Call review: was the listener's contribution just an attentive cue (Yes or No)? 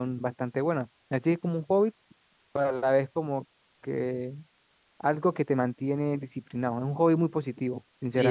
No